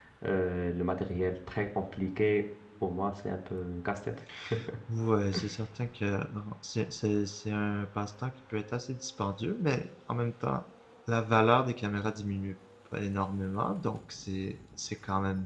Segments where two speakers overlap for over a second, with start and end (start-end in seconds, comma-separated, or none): none